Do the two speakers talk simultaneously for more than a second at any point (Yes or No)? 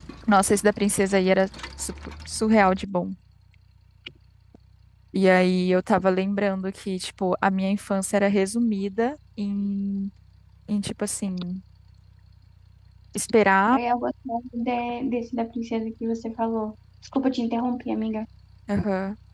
No